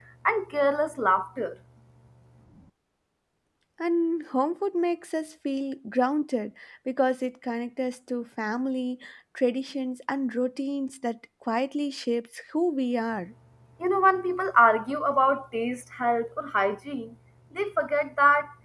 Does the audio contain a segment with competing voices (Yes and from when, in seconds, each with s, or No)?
No